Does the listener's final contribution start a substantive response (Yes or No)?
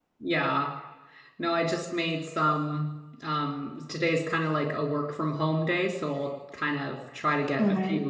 No